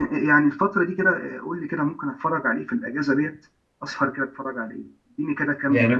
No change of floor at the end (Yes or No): No